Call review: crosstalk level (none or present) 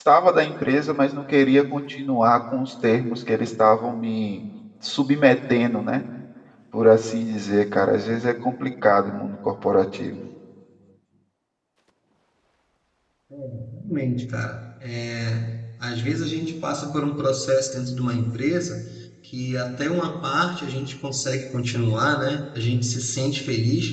none